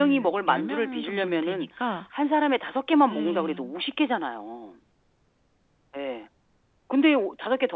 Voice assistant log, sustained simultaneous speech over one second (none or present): present